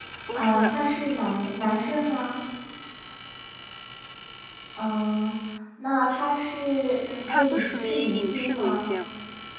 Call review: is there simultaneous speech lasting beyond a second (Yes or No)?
Yes